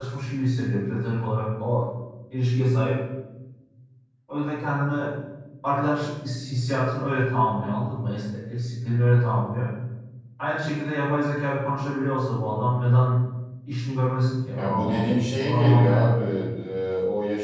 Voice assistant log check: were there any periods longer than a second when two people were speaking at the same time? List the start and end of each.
14.5-16.2

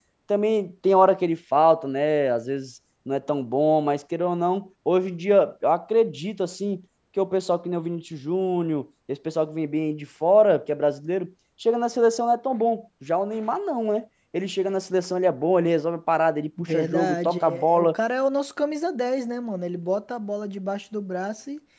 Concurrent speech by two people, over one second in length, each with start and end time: 16.6-18.0

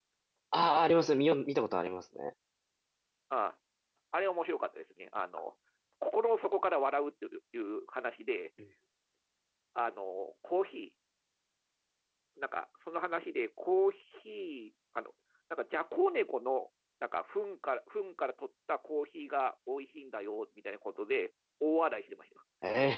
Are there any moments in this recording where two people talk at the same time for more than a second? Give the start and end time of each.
none

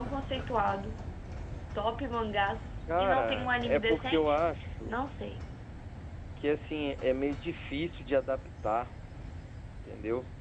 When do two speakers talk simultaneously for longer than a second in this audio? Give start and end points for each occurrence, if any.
3.0-4.4

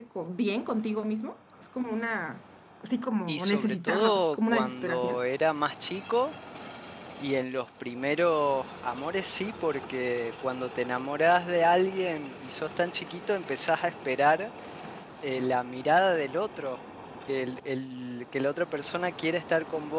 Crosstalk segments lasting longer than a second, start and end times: 3.3-5.2

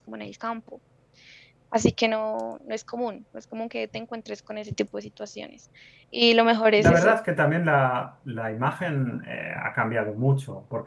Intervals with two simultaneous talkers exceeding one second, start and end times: none

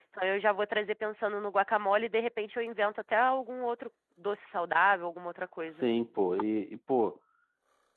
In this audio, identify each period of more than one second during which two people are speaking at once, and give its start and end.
none

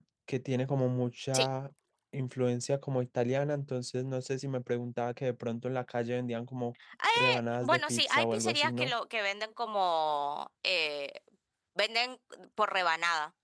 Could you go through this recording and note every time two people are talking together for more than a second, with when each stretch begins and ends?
7.6-8.9

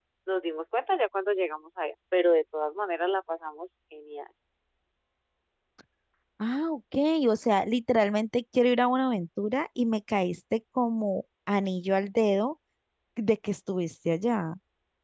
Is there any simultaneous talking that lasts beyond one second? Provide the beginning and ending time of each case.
none

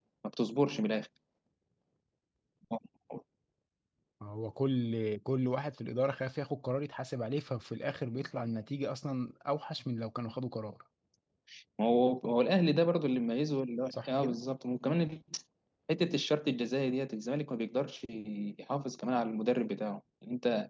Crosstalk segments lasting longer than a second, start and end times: none

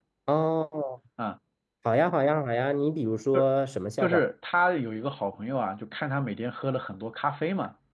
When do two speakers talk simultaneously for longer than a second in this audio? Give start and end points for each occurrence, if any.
none

